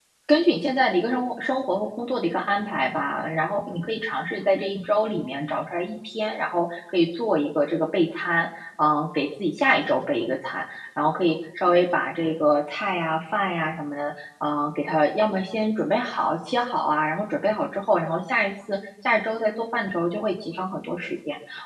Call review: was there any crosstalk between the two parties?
No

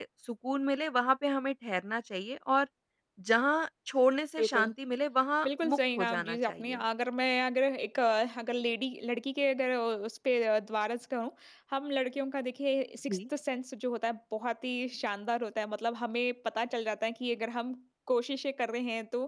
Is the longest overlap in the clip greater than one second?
Yes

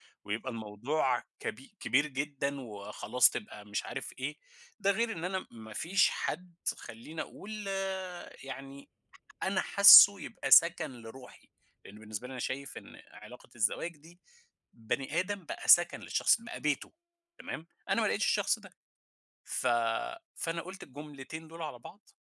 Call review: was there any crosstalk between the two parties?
No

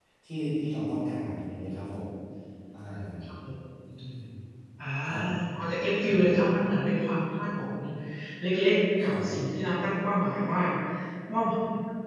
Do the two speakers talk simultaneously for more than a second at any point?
No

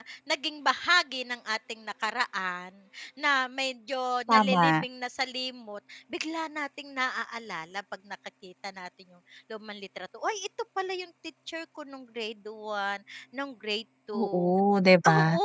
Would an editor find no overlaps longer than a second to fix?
Yes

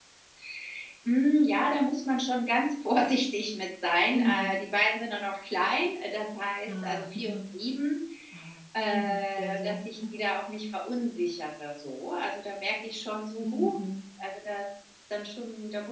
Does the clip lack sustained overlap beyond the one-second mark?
No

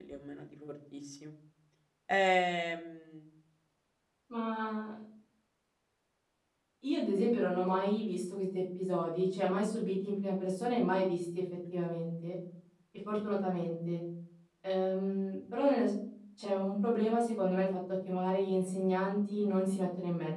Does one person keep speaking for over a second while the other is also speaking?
No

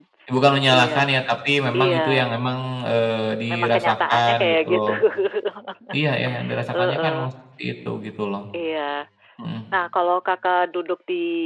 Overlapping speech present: Yes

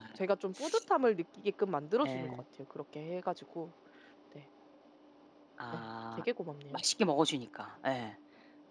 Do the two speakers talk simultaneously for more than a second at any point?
No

